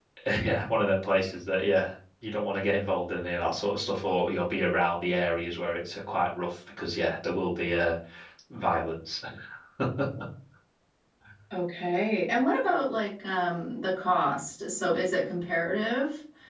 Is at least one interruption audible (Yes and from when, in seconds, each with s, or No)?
No